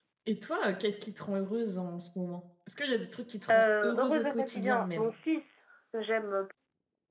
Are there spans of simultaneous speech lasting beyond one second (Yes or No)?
Yes